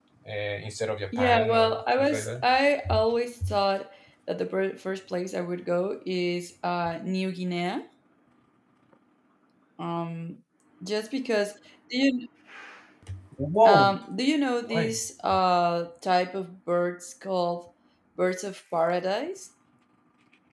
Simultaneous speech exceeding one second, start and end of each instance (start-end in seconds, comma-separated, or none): 1.1-2.4